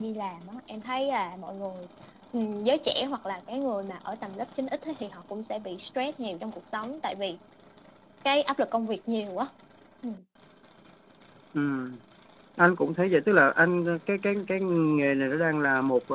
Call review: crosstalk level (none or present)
none